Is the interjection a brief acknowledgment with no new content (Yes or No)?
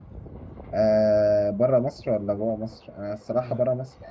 Yes